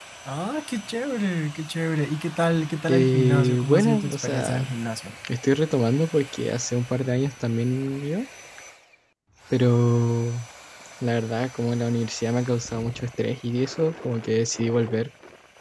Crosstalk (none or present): present